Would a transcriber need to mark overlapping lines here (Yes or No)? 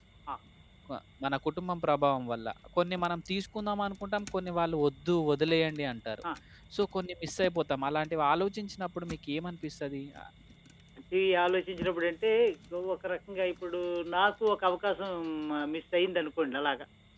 No